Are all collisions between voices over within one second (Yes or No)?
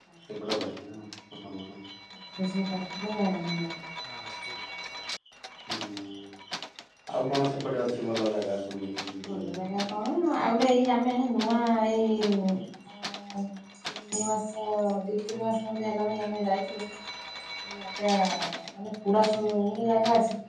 Yes